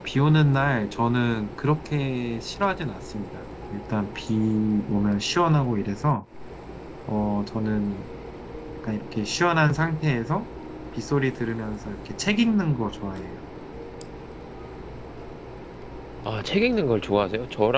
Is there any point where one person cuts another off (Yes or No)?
No